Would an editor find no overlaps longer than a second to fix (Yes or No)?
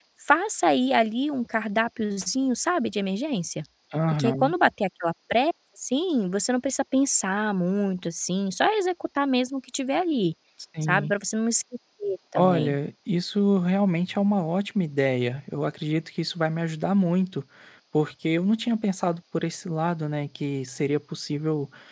Yes